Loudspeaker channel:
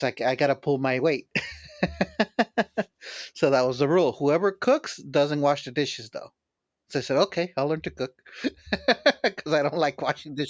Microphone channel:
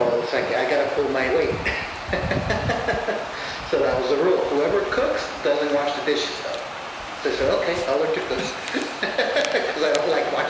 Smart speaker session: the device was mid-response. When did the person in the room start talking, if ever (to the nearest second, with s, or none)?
none